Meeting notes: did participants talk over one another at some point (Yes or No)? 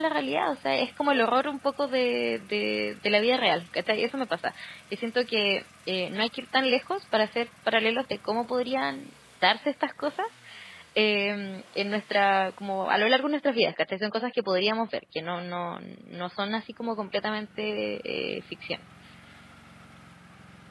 No